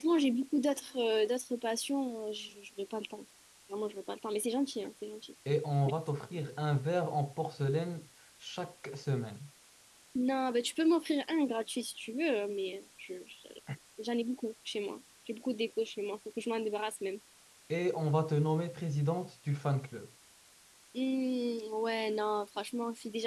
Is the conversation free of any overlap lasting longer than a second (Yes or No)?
Yes